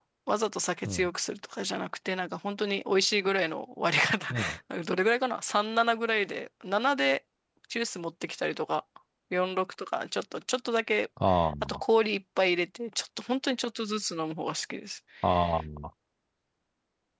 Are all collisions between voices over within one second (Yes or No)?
Yes